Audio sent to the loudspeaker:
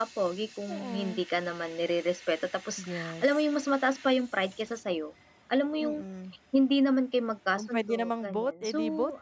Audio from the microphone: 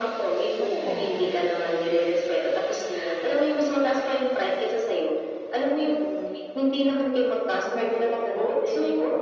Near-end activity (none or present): present